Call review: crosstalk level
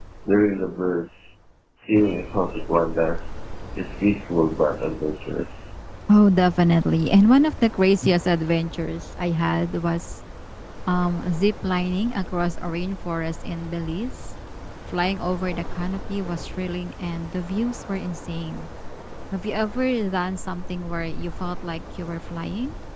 none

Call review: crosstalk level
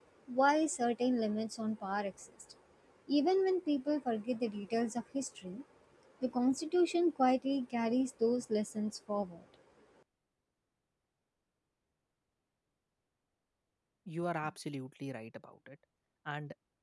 none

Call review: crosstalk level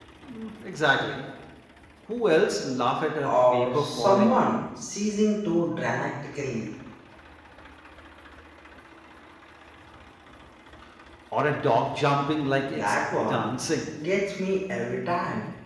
present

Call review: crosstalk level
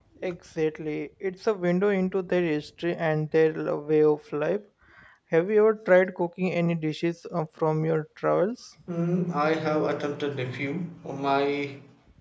none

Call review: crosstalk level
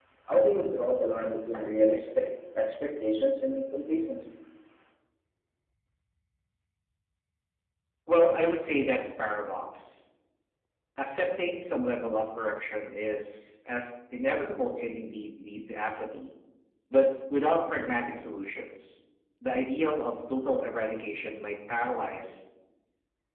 none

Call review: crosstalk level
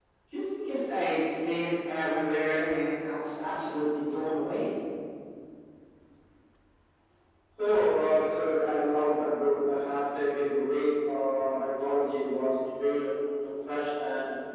none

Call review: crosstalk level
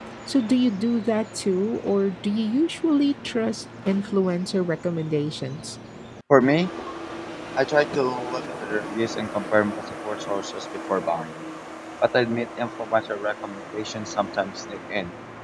none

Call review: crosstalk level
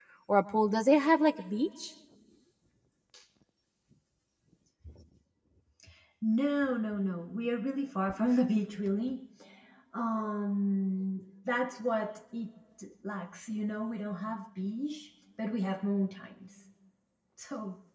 none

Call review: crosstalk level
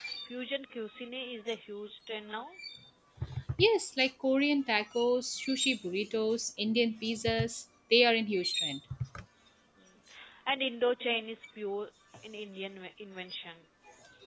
none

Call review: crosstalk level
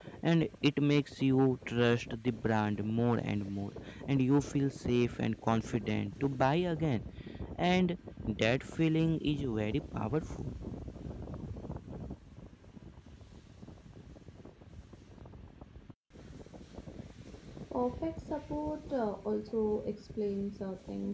none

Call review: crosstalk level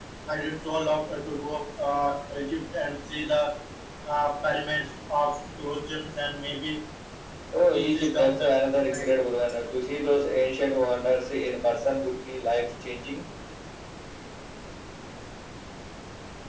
present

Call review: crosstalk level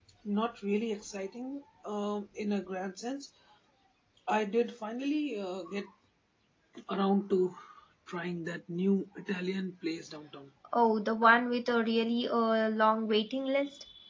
none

